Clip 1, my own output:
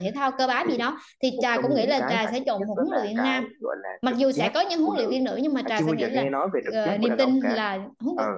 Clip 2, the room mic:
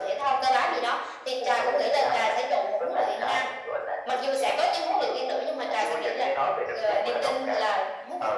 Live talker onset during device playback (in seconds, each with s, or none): none